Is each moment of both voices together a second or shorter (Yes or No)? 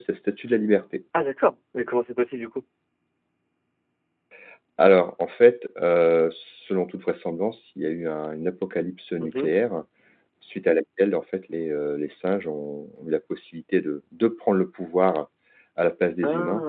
Yes